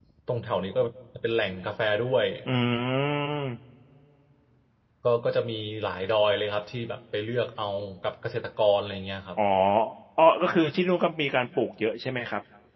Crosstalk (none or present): none